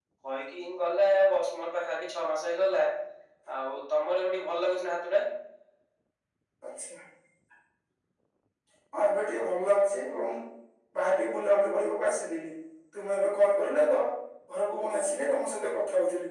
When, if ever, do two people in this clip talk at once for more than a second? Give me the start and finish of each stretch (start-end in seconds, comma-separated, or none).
none